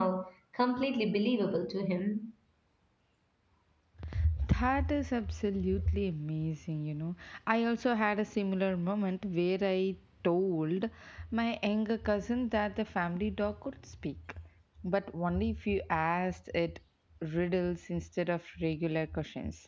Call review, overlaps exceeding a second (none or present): none